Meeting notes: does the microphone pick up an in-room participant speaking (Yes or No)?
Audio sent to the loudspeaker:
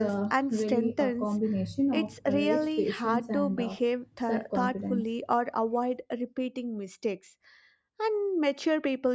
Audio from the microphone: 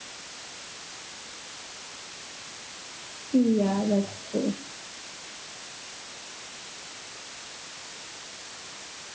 Yes